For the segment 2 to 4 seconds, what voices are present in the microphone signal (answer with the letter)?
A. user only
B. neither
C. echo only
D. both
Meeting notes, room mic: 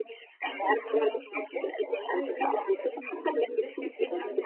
D